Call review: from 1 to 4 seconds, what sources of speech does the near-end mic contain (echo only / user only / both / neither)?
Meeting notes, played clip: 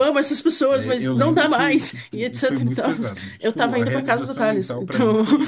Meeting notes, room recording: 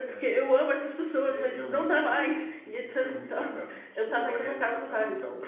echo only